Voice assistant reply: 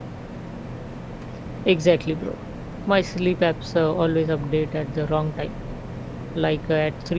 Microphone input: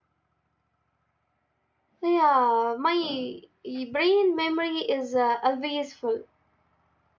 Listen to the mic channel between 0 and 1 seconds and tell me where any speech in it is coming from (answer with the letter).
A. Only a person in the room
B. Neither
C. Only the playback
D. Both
B